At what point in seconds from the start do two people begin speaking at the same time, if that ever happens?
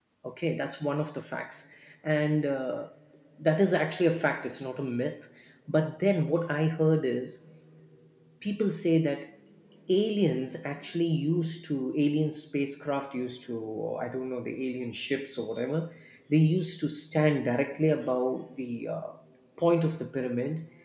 none

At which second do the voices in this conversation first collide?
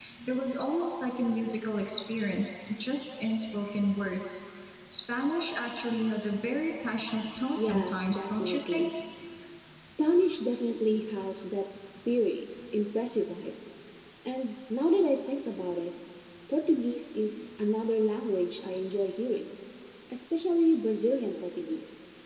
8 s

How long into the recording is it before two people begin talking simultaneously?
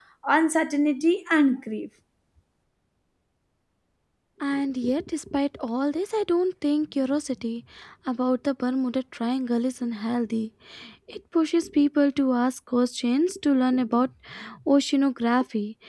none

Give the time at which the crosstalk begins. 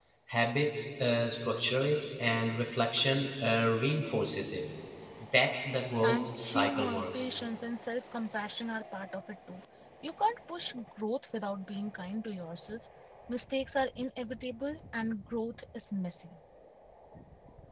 6 s

